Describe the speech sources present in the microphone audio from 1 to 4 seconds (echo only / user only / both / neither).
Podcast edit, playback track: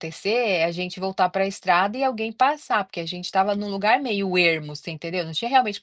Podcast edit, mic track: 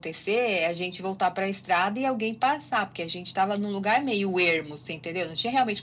echo only